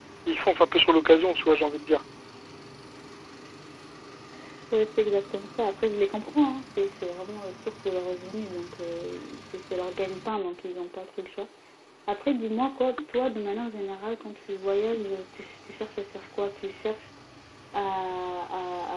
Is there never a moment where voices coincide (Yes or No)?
Yes